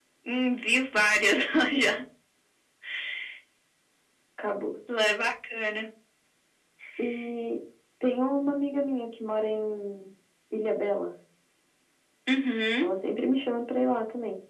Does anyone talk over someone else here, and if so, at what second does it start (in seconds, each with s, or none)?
none